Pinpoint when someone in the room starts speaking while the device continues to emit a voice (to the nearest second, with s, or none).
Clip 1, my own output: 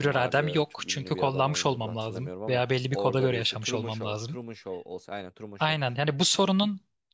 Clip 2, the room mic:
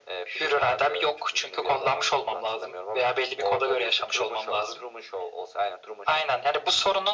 none